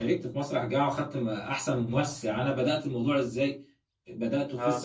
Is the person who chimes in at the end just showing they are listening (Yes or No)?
Yes